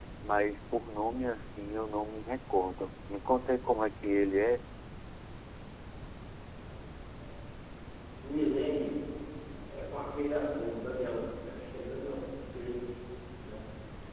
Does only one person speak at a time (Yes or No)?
Yes